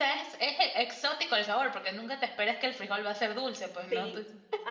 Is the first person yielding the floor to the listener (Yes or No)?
Yes